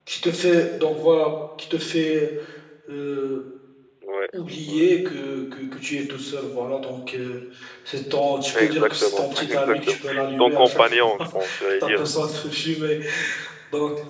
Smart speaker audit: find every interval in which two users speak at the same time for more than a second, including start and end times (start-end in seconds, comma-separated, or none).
8.6-12.1